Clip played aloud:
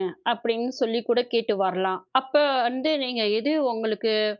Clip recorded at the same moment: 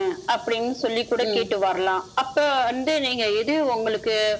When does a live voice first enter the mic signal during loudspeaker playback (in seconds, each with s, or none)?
1.2 s